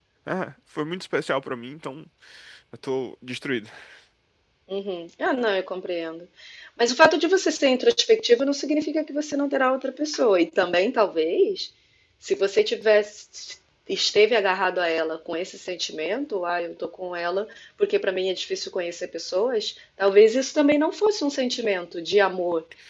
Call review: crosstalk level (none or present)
none